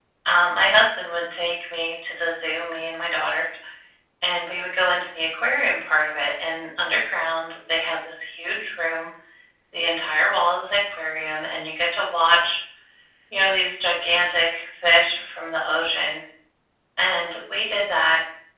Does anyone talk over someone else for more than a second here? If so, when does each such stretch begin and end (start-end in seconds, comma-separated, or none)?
none